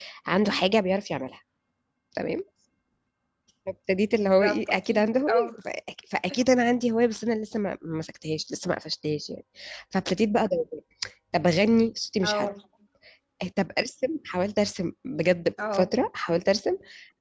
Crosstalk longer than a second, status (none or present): present